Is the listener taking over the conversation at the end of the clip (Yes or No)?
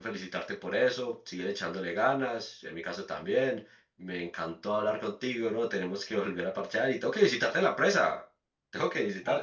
Yes